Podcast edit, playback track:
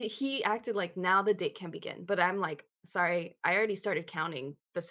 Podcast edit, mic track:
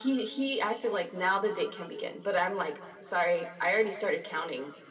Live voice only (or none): none